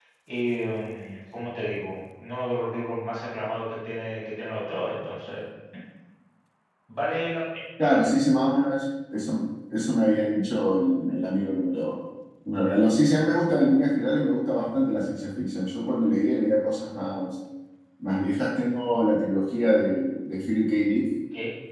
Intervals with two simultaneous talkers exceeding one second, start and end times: none

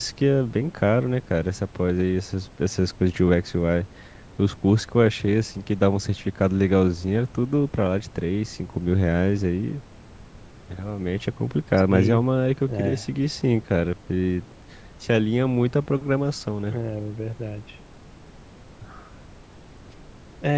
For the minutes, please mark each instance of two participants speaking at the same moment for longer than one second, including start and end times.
none

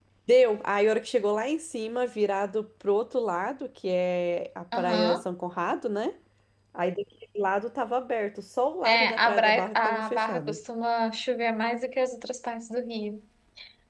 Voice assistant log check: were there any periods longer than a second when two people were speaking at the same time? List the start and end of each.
8.8-10.6

